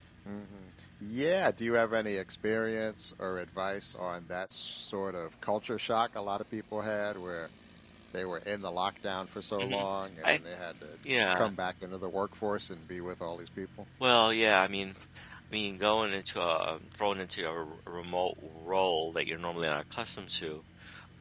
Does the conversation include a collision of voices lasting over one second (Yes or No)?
No